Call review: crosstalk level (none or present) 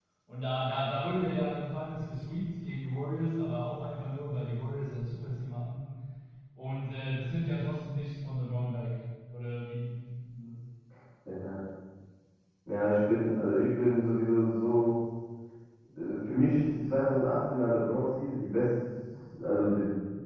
none